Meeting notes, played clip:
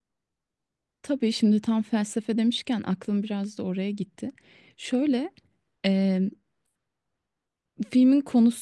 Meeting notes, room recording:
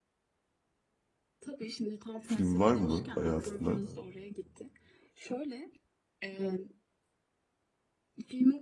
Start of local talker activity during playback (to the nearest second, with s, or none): 2 s